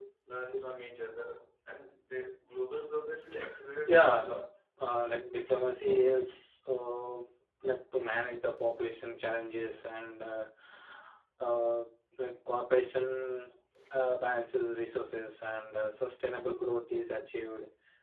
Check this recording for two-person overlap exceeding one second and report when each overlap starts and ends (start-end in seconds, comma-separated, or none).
none